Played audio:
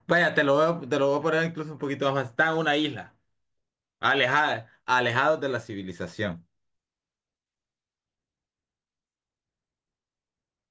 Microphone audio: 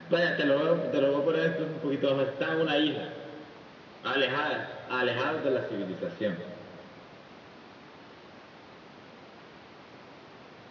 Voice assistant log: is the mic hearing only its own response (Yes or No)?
Yes